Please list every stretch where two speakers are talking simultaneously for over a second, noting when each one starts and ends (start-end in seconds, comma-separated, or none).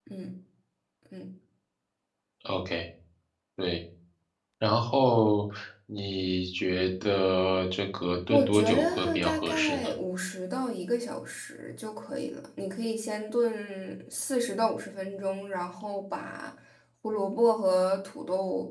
8.3-9.9